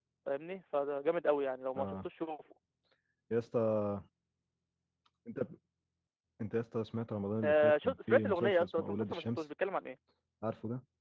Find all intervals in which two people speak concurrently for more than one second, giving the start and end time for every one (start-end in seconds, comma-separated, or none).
7.4-9.4